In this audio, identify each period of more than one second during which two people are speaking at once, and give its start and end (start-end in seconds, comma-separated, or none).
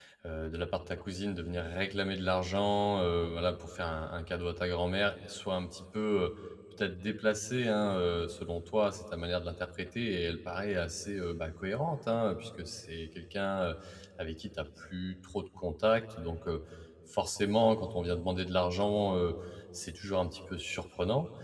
none